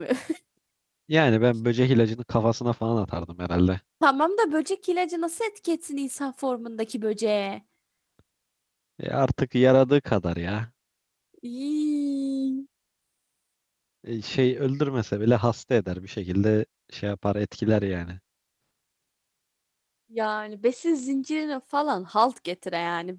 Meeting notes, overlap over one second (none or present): none